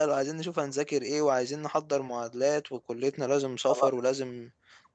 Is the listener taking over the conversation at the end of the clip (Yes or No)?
No